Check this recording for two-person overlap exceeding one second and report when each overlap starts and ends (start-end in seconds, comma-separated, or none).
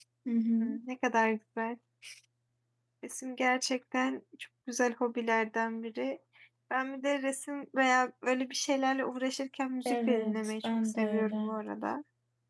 9.8-11.5